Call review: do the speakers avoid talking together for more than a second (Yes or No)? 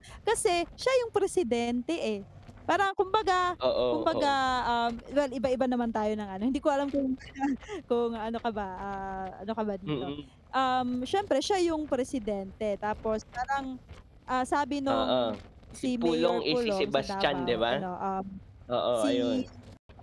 No